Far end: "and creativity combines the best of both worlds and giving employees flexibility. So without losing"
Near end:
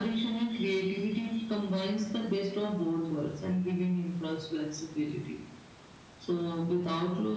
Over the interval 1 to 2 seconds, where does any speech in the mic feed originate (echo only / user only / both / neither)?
echo only